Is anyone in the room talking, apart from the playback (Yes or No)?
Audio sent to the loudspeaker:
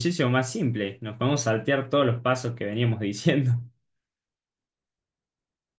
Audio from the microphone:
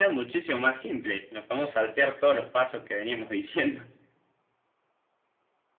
No